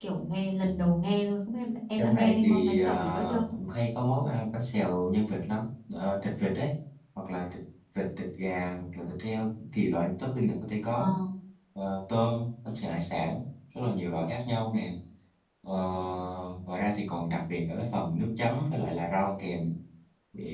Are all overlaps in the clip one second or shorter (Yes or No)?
No